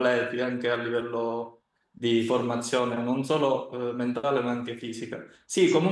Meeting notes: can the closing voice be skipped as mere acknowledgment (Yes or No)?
Yes